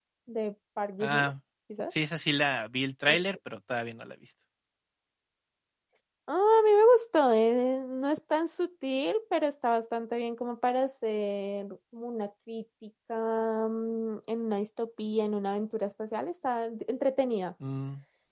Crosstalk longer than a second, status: none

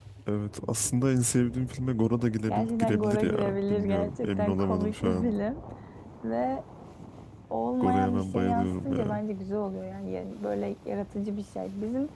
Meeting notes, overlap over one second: present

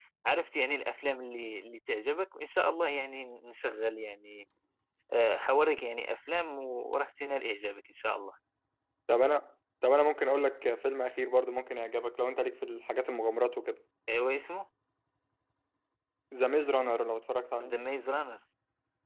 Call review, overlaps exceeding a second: none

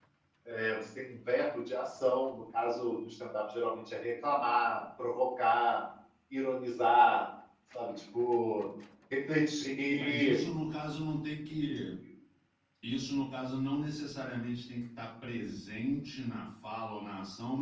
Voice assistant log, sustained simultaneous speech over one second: none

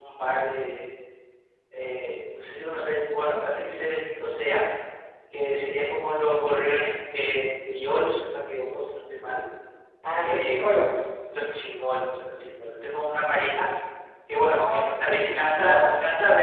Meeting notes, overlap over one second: present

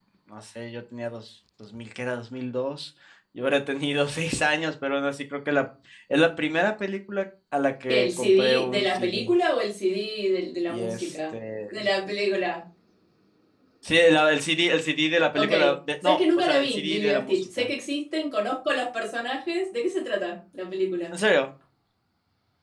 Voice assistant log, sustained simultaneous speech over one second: present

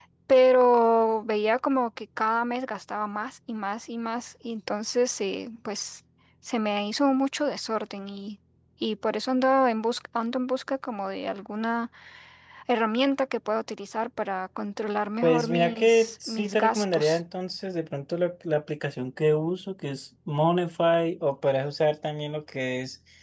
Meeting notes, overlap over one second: present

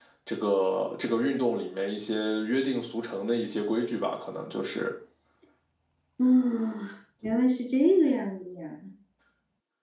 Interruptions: none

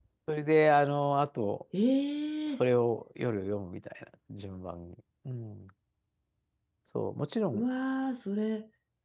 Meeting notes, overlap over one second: none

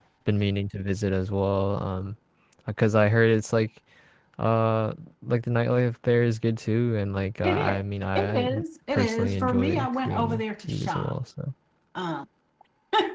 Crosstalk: present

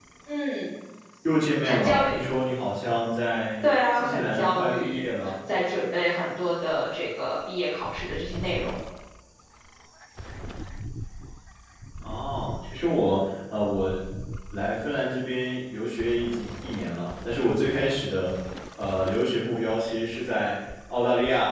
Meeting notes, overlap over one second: present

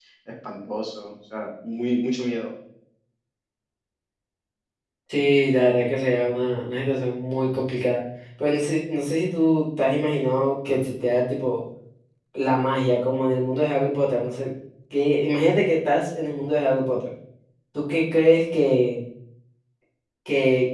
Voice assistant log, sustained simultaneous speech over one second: none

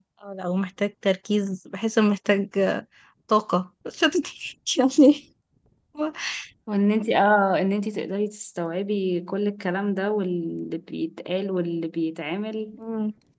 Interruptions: none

